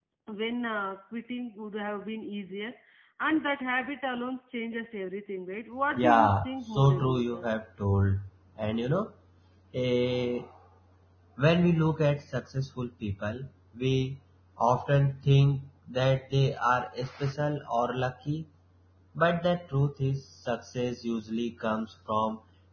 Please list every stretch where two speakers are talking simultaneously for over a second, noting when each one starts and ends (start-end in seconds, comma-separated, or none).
6.0-7.5